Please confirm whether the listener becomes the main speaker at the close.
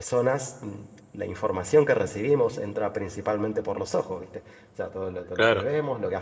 No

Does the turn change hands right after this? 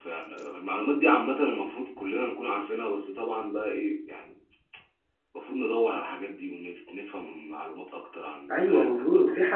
Yes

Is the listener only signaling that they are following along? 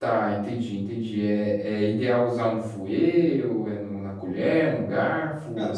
No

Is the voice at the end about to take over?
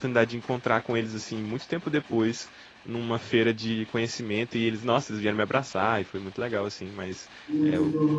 No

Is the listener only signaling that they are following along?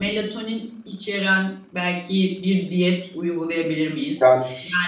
Yes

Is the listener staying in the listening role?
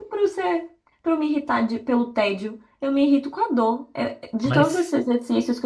Yes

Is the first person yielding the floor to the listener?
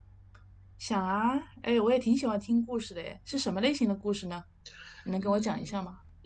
Yes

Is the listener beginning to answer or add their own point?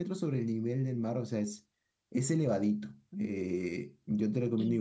No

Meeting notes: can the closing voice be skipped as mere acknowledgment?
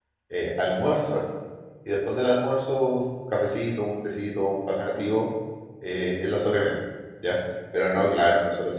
Yes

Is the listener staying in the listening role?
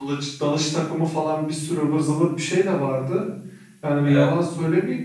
Yes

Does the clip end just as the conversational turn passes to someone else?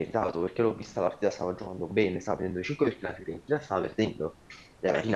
No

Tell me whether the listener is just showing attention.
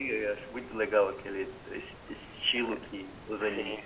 No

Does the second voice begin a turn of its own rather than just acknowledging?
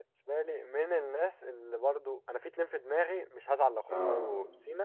No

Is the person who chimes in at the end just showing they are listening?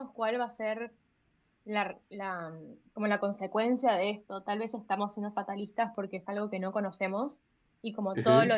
Yes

